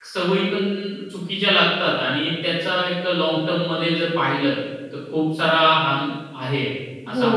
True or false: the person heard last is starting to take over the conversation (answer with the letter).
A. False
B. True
B